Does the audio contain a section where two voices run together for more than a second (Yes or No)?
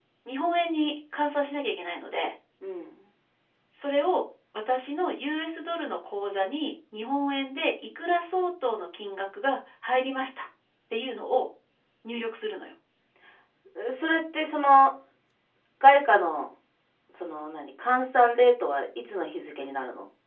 No